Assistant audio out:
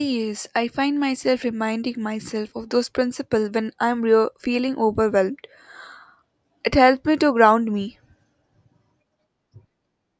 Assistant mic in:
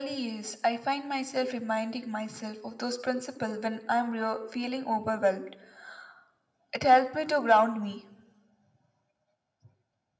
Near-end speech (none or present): none